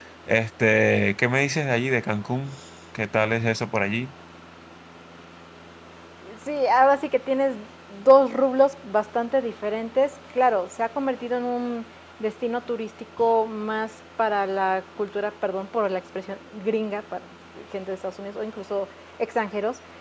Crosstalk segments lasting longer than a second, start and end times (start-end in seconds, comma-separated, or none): none